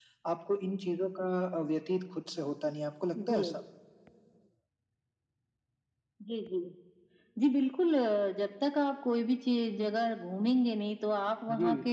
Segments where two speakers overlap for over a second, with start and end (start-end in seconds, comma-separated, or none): none